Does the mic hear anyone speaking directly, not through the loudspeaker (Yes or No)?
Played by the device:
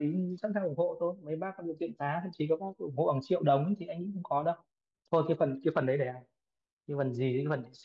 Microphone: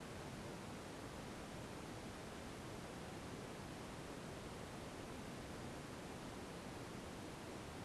No